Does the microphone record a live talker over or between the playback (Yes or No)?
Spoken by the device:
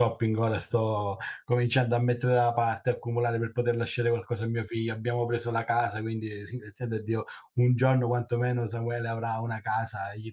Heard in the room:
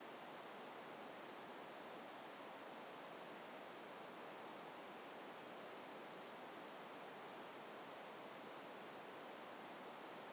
No